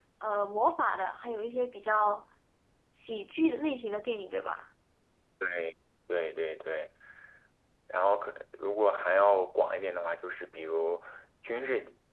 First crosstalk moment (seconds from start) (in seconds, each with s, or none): none